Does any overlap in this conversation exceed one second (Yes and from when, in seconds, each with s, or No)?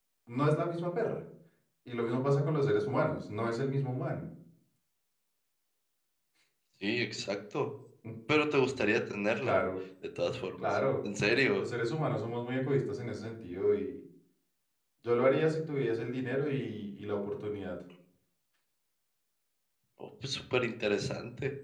No